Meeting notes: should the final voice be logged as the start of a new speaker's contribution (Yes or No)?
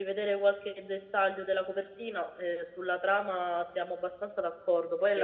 Yes